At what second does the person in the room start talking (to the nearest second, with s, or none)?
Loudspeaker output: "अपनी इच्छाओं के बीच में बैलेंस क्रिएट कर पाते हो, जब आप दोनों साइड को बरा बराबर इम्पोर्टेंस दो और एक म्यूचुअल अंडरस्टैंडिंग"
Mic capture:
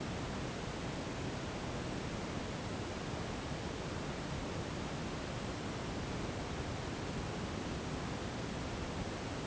none